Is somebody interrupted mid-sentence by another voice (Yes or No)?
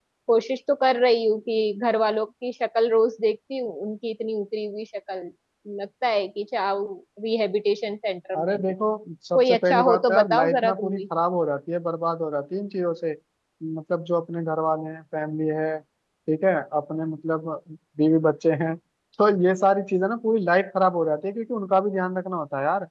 Yes